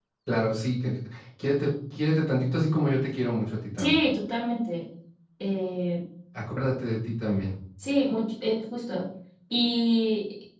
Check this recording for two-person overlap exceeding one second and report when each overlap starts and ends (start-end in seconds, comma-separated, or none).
none